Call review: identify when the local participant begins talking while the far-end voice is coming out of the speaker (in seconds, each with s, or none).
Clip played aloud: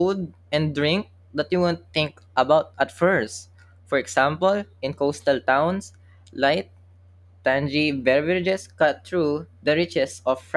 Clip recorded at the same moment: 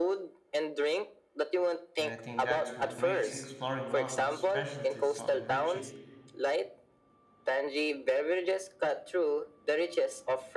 2.0 s